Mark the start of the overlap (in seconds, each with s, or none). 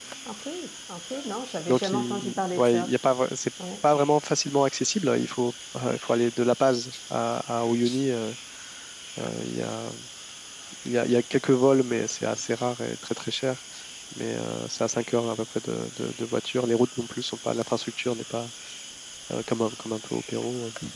1.7 s